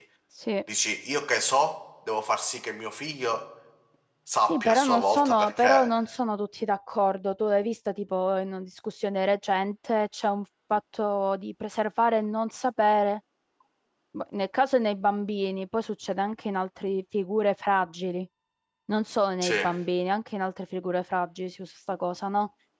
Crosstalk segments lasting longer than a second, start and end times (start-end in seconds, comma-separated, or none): 4.5-5.9